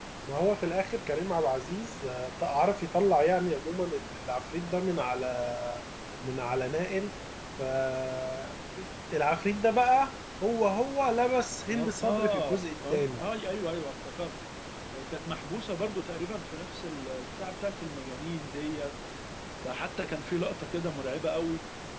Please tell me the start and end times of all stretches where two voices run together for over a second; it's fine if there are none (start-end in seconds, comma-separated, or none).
11.7-13.2